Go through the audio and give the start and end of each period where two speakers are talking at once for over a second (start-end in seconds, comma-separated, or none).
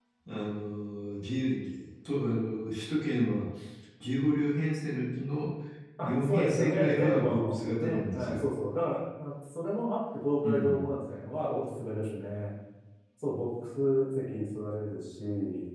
6.0-8.5